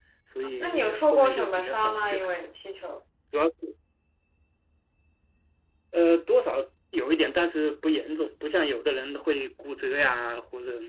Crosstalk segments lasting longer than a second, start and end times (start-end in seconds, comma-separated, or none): 0.6-2.3